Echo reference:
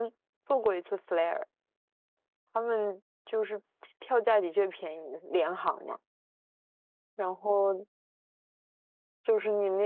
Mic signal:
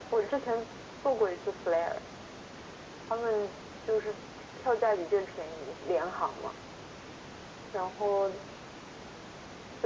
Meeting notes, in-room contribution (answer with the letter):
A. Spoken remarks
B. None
B